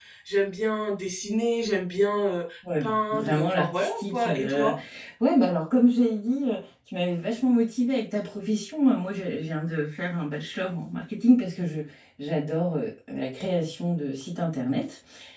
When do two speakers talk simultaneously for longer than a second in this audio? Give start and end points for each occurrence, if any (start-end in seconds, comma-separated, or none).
2.8-4.7